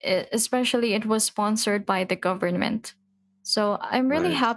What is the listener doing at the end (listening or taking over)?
listening